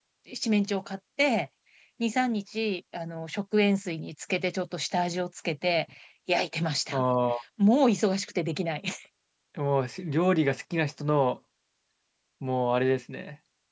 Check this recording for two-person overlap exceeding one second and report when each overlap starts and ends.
none

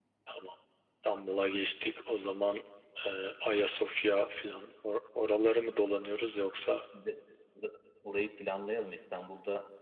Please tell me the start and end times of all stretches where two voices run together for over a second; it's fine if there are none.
none

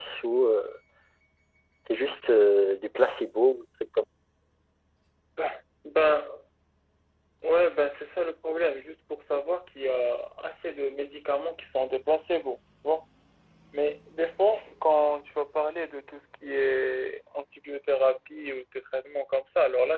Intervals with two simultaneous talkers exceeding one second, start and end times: none

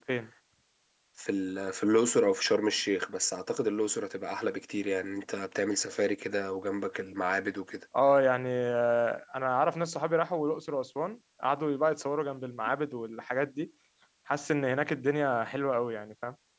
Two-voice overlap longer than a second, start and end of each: none

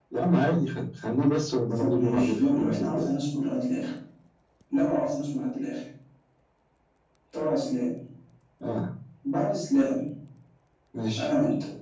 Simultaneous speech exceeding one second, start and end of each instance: 1.8-3.0

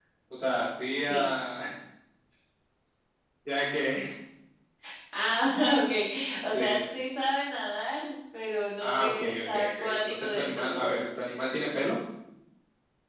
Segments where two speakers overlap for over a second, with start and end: 8.8-10.8

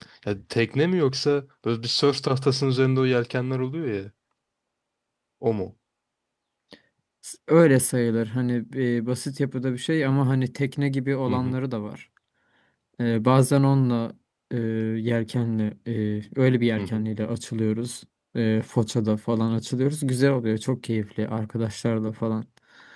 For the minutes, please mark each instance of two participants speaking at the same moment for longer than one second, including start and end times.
none

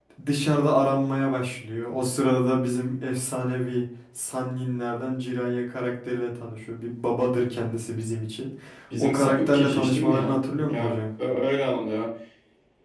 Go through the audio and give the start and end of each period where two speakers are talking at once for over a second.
9.0-11.0

